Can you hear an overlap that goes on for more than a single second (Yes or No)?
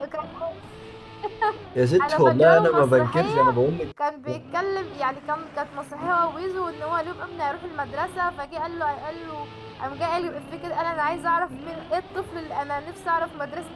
Yes